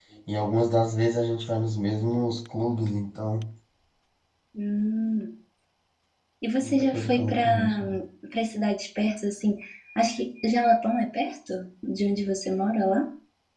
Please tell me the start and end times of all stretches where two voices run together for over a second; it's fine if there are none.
6.6-7.8

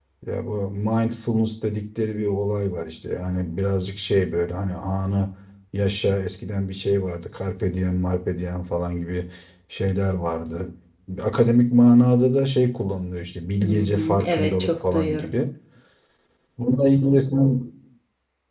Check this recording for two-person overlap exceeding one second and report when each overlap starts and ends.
13.6-15.3

